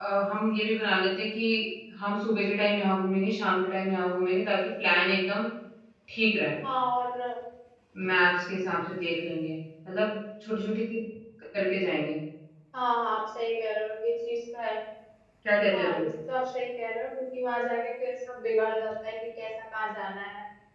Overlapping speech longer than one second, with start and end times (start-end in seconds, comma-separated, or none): none